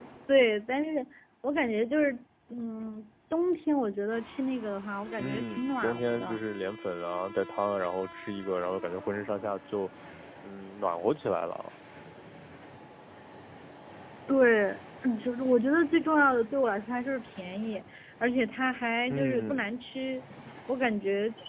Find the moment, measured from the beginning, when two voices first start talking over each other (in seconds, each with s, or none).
5.2 s